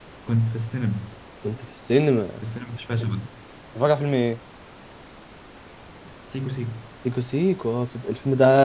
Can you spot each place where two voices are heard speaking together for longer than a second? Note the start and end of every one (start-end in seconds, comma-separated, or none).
none